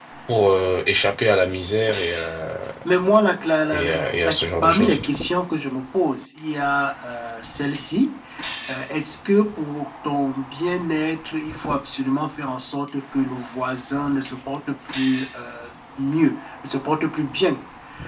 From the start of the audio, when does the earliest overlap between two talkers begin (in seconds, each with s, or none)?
3.7 s